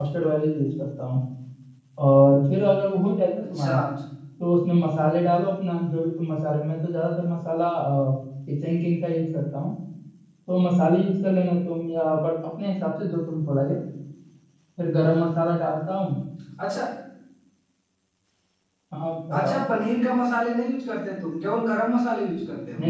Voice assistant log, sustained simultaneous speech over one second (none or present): none